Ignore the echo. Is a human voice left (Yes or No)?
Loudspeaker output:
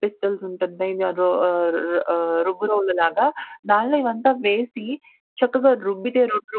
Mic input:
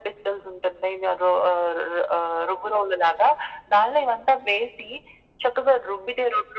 No